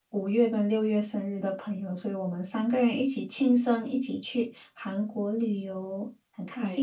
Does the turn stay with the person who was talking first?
No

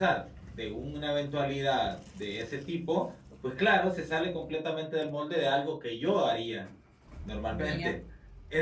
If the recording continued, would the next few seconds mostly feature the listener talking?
No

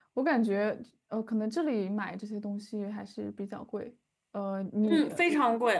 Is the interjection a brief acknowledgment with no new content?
No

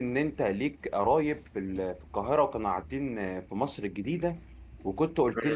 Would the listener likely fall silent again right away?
Yes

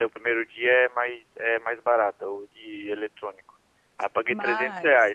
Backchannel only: Yes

